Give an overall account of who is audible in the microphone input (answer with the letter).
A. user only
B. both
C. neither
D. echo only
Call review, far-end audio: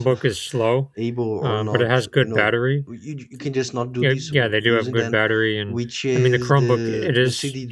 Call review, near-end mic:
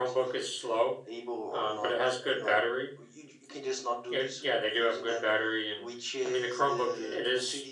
D